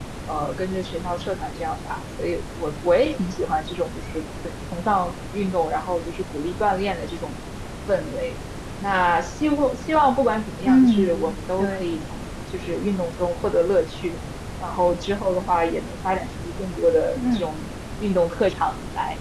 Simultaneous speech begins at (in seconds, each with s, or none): 10.6 s